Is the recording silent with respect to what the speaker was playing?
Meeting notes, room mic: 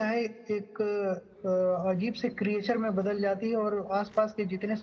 No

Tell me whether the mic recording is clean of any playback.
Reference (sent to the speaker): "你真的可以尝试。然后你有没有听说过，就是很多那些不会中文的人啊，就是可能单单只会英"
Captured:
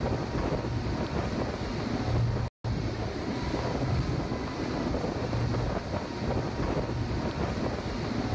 Yes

